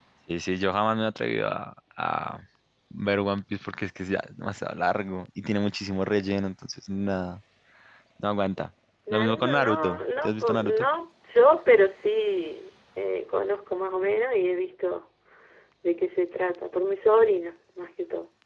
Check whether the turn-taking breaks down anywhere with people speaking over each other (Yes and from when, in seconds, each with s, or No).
Yes, from 9.1 s